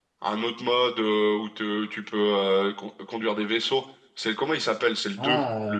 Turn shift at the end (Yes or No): Yes